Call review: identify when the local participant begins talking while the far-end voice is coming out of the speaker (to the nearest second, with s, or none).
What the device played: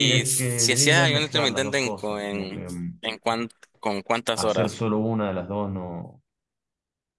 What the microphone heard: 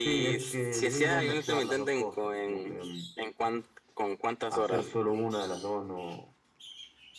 none